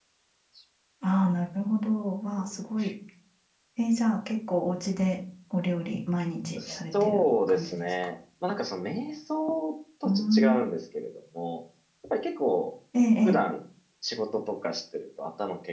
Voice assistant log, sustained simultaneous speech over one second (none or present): present